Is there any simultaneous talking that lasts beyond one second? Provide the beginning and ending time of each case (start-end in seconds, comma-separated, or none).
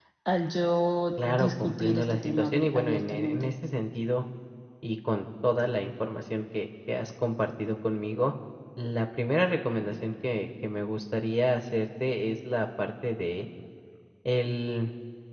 1.2-3.5